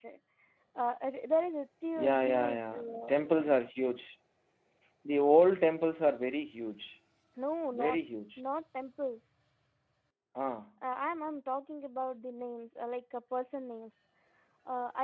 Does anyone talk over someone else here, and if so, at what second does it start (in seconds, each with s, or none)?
2.0 s